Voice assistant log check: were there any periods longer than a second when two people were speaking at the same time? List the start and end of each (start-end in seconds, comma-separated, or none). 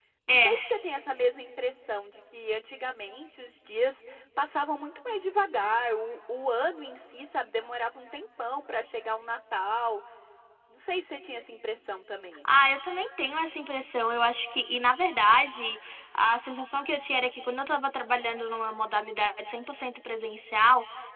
none